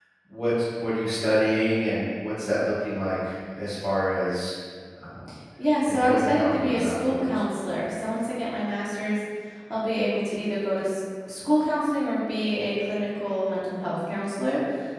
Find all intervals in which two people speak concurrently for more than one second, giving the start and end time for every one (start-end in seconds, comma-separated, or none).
5.8-7.3